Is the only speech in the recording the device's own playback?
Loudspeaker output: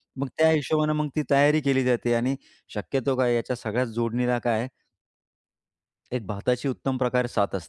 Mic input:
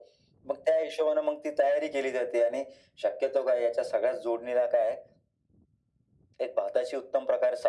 Yes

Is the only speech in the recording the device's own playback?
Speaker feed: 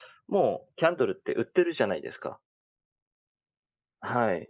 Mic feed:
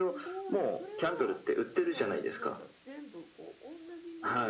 No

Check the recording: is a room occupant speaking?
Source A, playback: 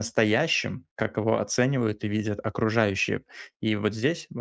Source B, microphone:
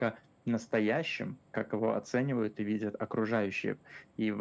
No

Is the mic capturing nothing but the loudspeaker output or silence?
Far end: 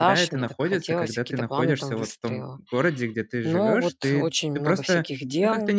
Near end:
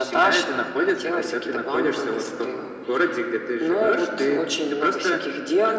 Yes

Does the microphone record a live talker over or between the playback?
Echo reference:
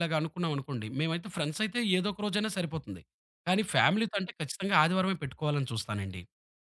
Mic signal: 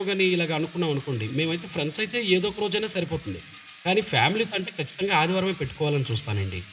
No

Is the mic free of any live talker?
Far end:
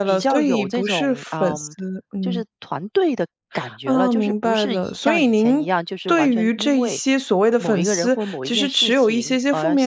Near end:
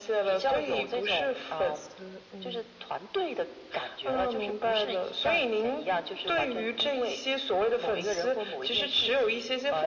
Yes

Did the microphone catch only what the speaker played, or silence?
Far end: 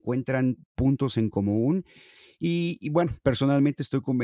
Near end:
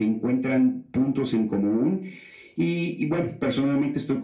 Yes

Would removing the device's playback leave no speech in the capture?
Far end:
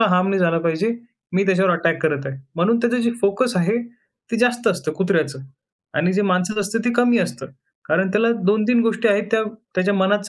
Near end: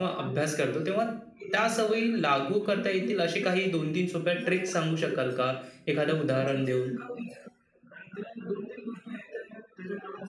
No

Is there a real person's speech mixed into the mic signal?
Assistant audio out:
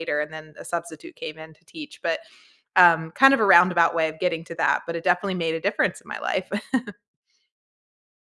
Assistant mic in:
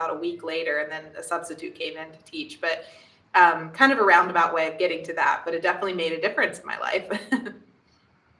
No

